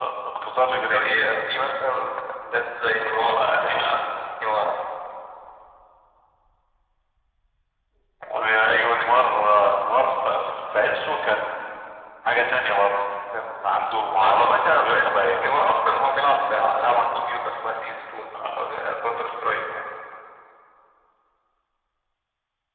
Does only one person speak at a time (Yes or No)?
No